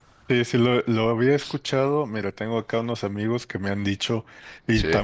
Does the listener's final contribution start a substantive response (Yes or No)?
No